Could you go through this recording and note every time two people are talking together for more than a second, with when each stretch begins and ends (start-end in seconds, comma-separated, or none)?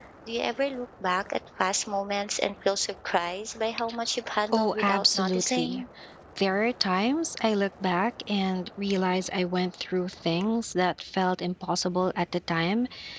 4.5-5.8